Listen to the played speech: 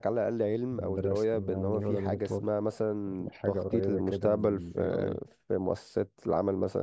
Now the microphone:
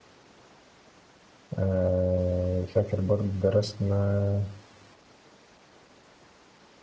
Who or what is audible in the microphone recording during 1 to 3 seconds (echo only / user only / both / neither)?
user only